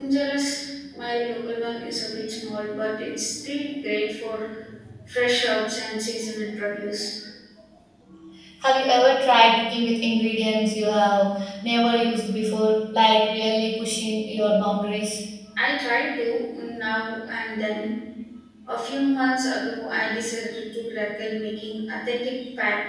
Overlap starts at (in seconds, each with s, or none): none